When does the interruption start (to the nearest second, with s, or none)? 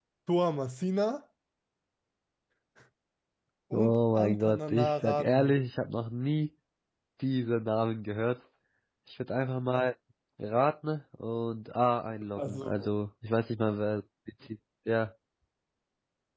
4 s